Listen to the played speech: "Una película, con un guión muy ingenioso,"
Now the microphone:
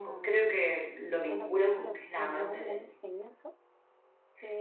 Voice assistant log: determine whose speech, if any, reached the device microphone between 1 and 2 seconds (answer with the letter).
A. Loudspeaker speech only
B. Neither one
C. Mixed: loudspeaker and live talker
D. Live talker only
C